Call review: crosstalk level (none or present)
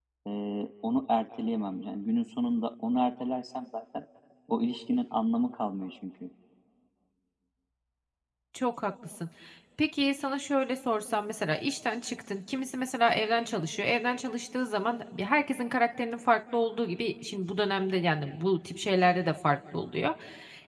none